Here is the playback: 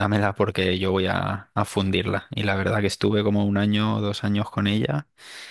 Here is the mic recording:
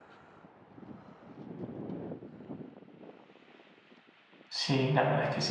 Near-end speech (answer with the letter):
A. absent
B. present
B